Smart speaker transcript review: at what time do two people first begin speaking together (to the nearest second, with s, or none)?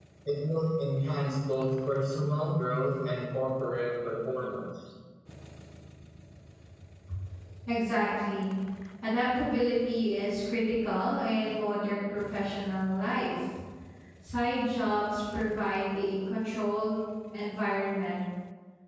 none